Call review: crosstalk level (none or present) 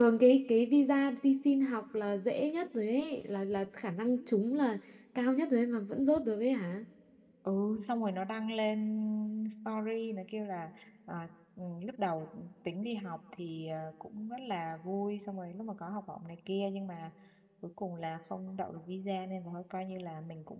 none